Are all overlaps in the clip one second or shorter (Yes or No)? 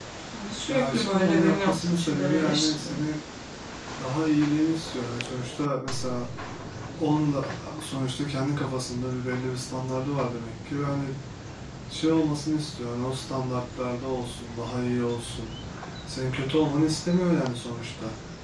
No